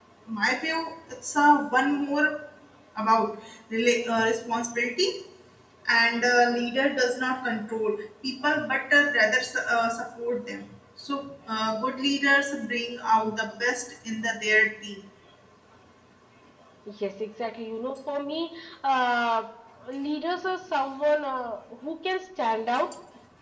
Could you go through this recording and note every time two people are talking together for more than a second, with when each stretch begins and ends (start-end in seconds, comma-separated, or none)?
none